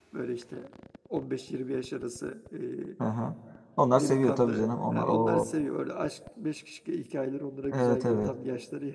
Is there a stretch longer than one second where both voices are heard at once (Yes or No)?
Yes